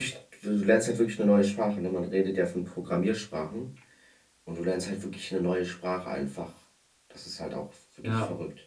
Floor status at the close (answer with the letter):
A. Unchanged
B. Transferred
B